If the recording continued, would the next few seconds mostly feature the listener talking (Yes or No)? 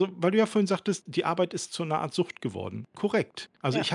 No